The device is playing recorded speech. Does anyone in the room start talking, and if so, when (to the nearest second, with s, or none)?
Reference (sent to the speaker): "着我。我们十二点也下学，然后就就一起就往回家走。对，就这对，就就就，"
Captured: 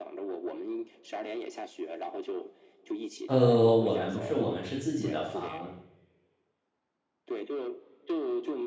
3 s